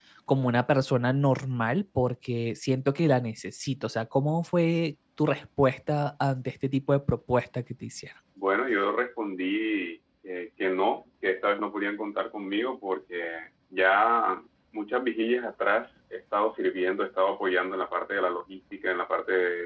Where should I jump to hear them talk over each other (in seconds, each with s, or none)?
none